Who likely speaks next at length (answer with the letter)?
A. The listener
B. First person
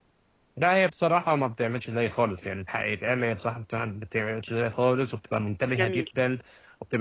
B